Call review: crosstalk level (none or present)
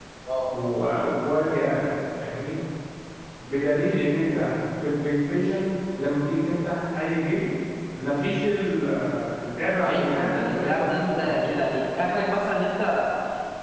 present